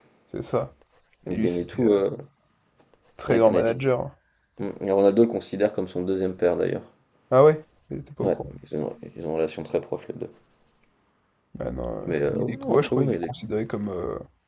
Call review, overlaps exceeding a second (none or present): present